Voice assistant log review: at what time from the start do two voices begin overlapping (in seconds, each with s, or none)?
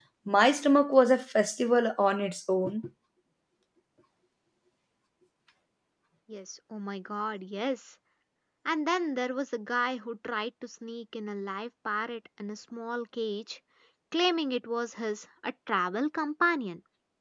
none